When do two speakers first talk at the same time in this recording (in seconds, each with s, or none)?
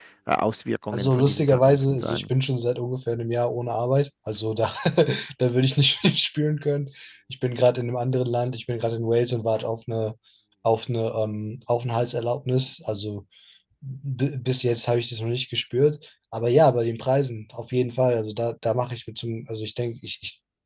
0.9 s